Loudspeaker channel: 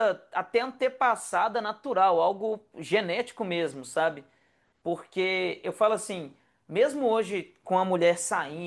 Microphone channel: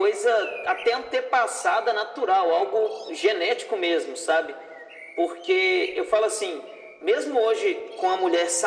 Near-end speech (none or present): none